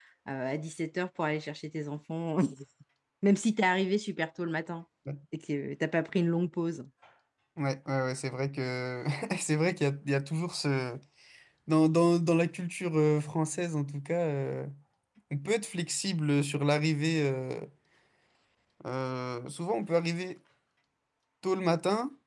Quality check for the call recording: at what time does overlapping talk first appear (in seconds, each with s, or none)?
none